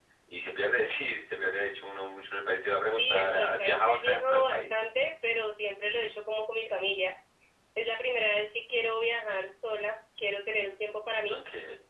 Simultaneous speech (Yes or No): Yes